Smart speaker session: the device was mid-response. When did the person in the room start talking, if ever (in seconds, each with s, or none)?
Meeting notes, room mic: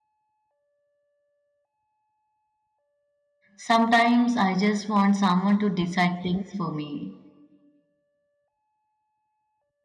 3.6 s